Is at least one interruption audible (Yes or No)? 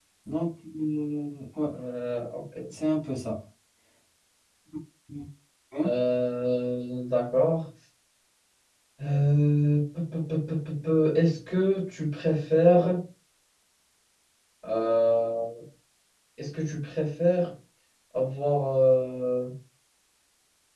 No